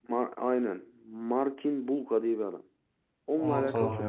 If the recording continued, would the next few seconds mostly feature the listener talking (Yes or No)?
No